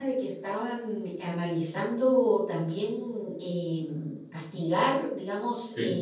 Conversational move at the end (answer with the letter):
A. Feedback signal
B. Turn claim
A